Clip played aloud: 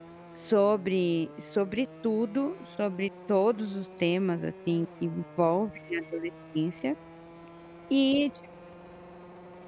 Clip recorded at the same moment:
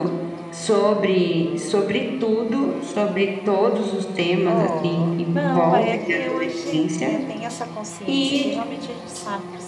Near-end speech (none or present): present